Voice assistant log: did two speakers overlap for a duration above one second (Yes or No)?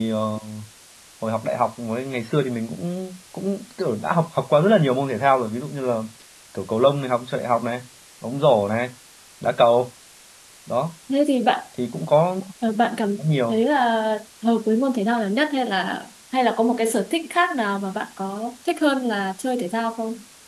No